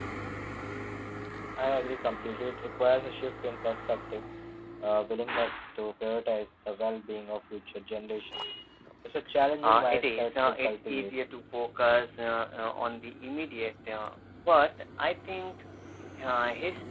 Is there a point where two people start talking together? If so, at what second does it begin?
10 s

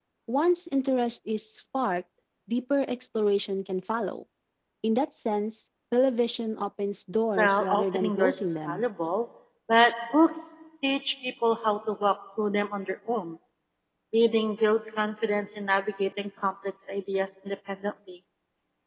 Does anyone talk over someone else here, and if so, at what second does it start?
7 s

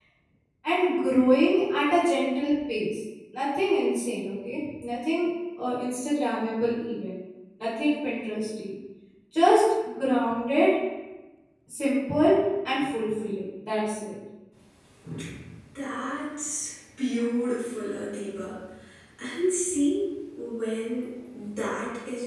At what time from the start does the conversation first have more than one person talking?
none

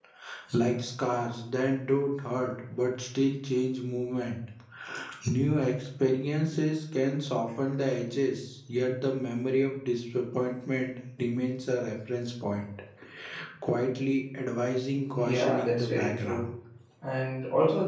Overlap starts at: 15 s

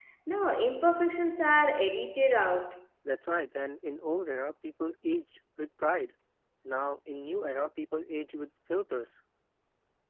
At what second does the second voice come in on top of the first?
none

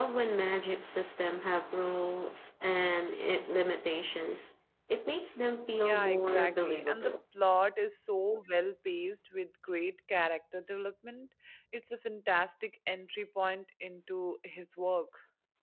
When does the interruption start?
6 s

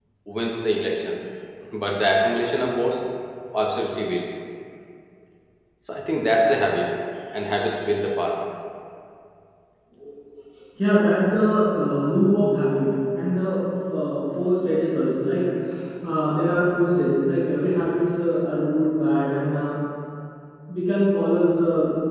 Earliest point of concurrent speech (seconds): none

